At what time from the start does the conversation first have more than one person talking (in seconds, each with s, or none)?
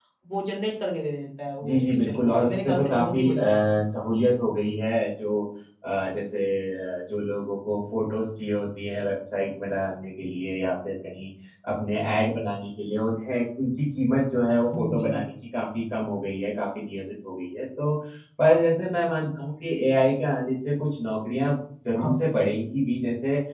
1.6 s